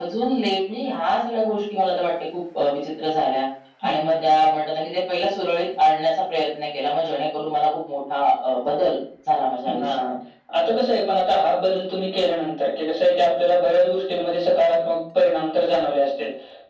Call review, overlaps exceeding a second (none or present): none